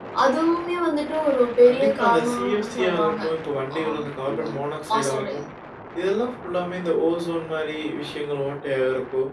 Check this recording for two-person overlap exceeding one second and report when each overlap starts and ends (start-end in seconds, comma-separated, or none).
1.7-3.2